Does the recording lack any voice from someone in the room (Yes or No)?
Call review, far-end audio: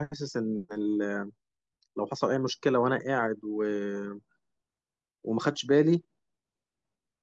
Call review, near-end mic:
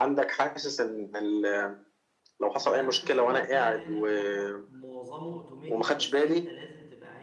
No